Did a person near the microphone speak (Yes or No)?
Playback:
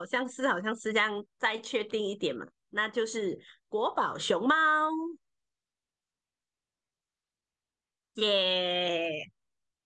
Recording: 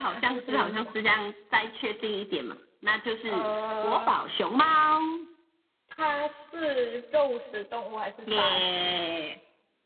Yes